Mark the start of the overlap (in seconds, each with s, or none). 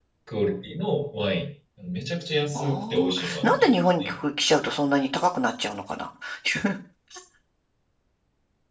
2.5 s